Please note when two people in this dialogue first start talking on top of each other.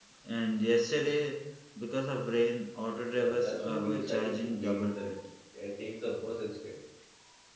3.1 s

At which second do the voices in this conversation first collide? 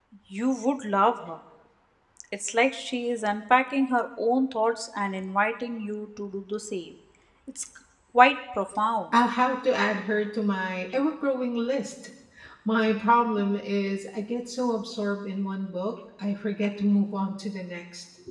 none

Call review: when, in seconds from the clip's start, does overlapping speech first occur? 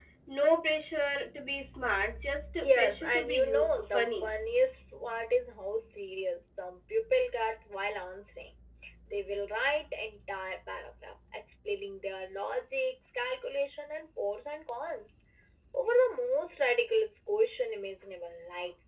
2.6 s

